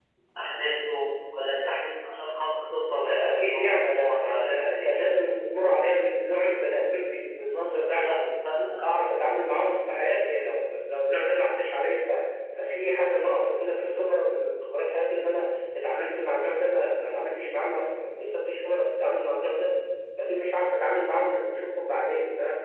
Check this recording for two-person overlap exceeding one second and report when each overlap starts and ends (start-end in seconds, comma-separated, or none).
3.0-5.2